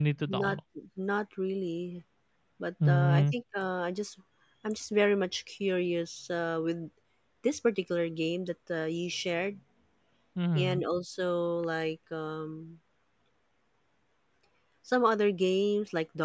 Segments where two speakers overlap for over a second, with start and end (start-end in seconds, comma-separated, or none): none